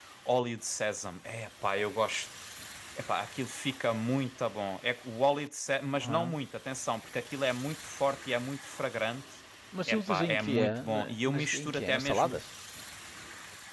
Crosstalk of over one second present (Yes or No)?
Yes